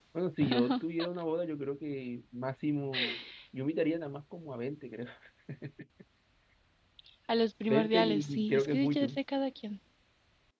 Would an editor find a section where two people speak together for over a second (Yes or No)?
Yes